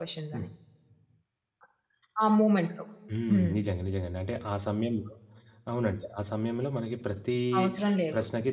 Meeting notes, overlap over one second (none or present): none